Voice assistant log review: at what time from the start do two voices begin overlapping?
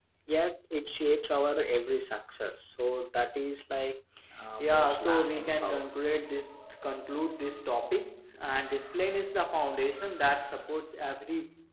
5 s

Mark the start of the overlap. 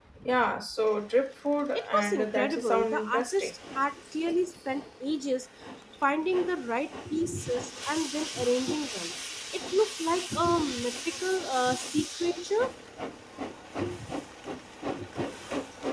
2 s

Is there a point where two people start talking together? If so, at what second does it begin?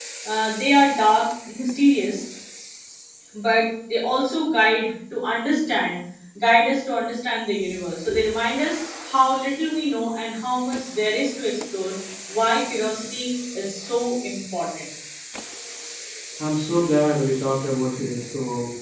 none

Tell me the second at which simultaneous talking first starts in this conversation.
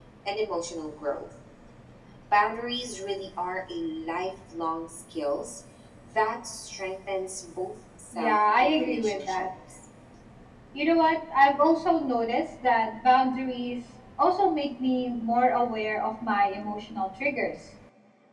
8 s

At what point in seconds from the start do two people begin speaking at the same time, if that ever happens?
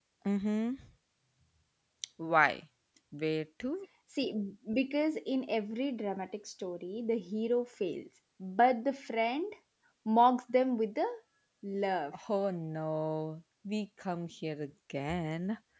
none

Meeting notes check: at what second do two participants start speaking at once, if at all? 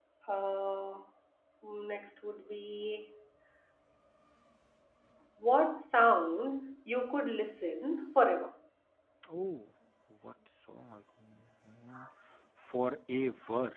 none

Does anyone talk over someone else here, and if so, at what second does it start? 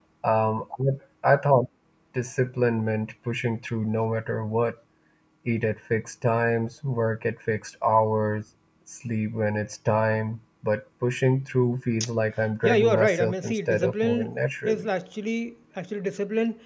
13 s

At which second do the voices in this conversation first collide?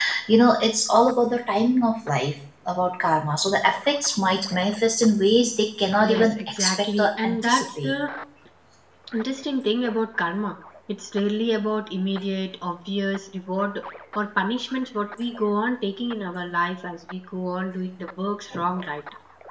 6 s

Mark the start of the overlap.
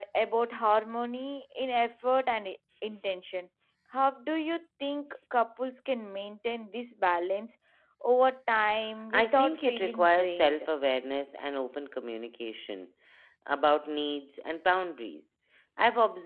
9 s

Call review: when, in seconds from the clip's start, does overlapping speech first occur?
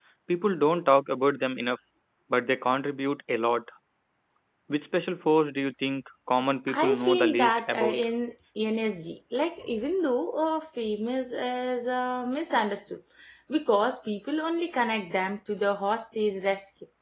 7 s

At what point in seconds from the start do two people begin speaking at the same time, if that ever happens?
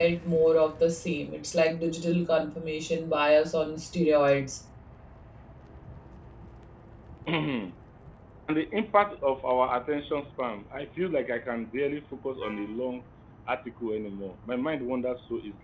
none

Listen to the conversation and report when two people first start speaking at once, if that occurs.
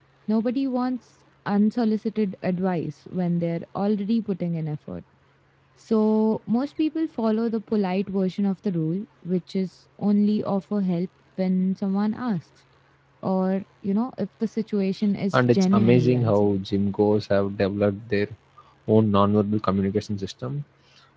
15 s

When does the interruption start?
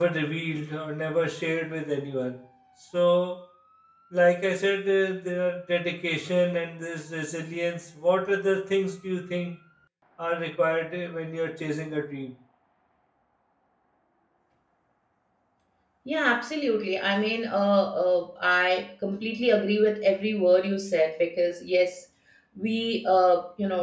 none

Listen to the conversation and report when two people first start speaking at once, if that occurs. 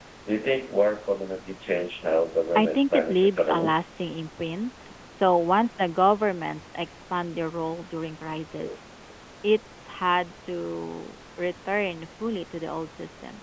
3 s

